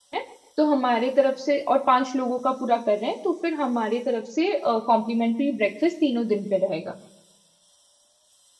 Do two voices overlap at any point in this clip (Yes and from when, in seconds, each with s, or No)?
No